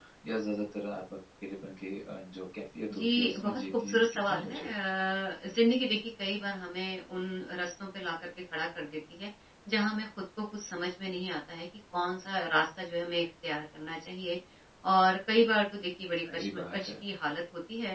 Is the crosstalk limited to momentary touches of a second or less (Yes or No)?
No